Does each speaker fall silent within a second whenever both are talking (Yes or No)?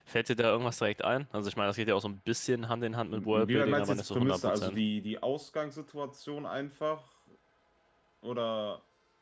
No